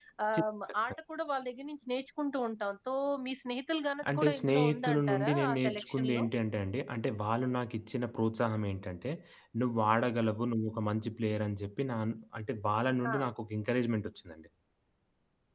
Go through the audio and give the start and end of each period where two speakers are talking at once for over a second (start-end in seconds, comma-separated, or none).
4.2-6.2